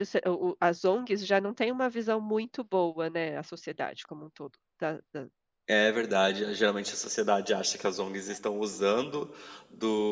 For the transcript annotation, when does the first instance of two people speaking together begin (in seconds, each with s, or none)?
none